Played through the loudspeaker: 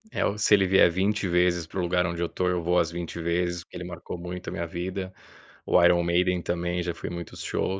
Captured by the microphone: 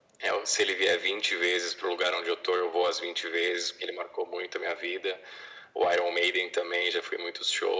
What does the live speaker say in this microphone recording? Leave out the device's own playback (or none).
none